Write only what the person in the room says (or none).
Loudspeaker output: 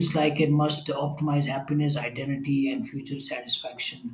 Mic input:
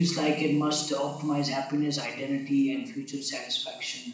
none